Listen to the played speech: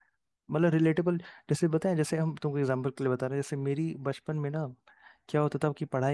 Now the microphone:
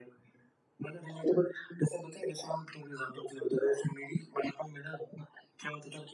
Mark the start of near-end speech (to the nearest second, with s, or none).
none